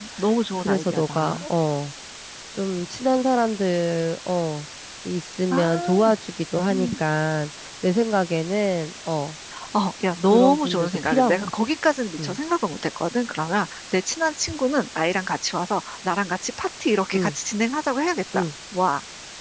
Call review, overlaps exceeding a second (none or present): present